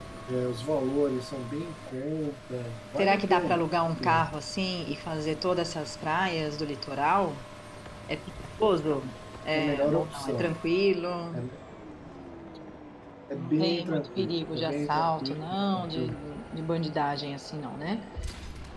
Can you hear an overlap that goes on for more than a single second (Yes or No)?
Yes